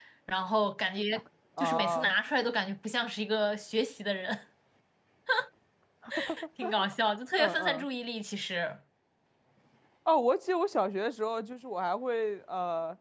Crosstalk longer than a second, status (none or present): none